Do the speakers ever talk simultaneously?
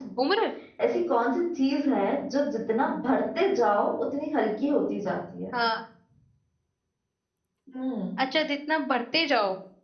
No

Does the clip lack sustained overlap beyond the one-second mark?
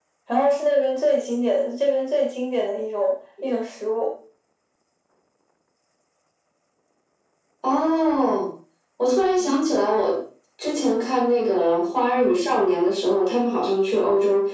Yes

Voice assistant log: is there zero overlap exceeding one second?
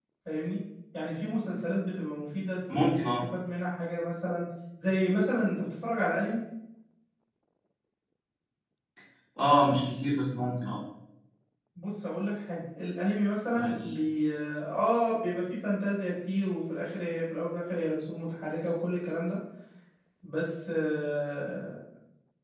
Yes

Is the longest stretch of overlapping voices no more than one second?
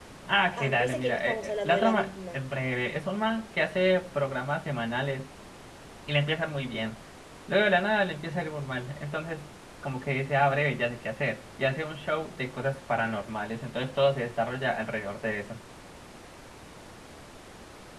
No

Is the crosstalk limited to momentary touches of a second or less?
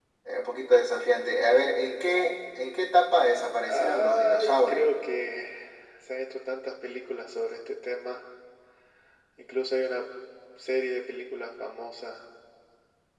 No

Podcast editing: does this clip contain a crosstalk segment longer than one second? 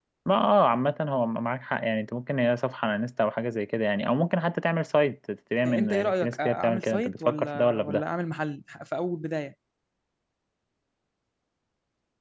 Yes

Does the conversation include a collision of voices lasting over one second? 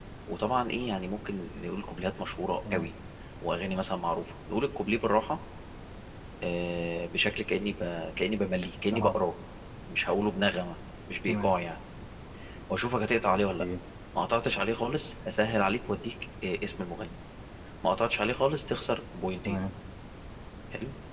No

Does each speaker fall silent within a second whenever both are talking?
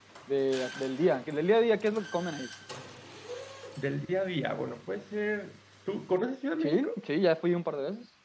Yes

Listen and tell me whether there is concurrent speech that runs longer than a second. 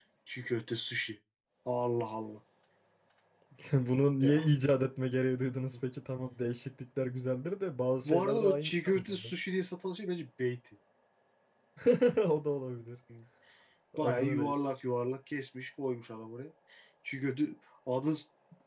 Yes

